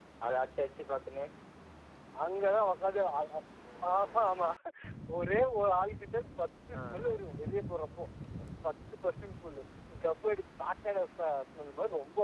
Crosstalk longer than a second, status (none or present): none